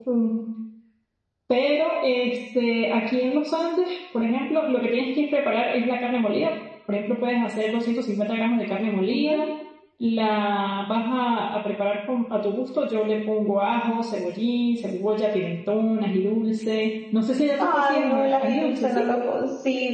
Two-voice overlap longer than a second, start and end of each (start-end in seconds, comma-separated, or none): 17.6-19.2